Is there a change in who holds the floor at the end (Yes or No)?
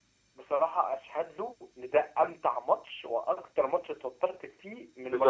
Yes